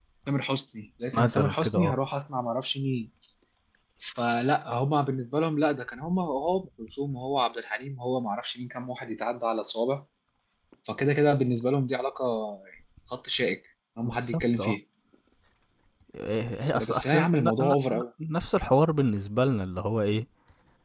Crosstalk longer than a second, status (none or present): present